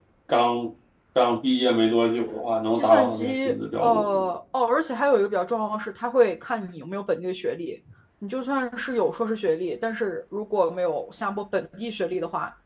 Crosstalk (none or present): present